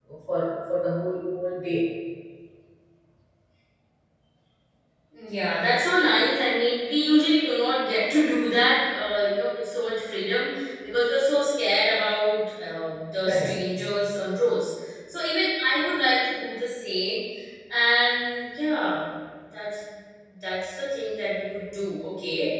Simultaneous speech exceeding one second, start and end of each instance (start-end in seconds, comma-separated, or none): none